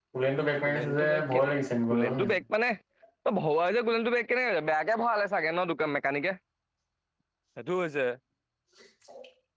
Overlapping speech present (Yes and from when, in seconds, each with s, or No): Yes, from 0.7 s